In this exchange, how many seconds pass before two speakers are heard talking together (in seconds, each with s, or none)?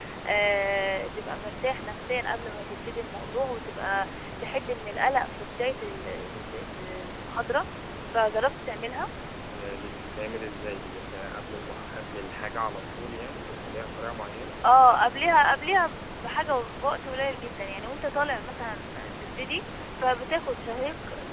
none